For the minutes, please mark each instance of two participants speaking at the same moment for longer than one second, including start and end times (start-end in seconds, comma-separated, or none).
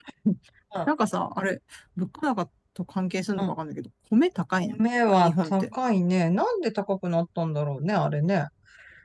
none